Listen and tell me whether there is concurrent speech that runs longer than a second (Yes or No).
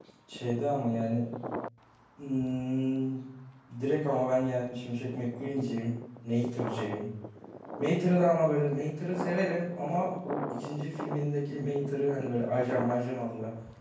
No